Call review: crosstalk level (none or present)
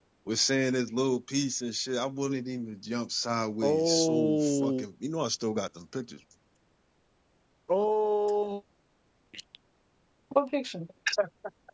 present